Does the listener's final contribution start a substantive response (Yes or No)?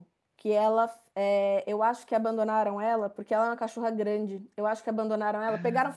No